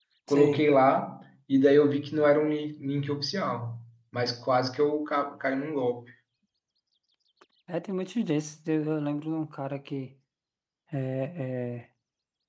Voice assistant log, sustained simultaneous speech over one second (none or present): none